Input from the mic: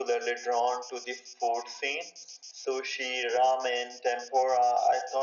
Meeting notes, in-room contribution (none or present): none